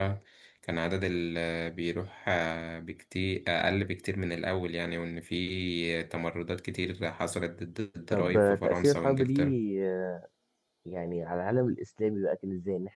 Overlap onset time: 8.1 s

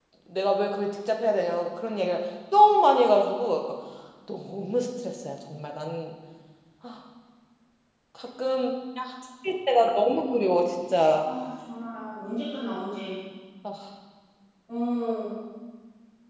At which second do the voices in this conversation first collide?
none

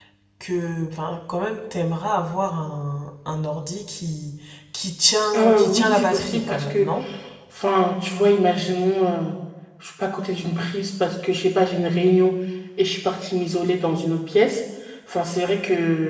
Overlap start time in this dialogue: 5.4 s

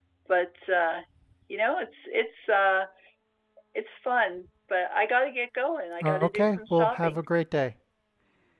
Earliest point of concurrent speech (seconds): 6.0 s

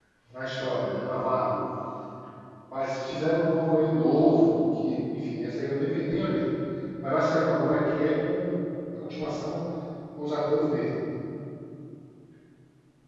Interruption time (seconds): none

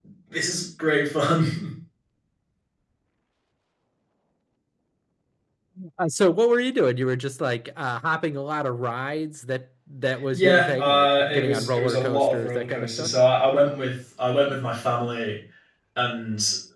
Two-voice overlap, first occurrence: 10.3 s

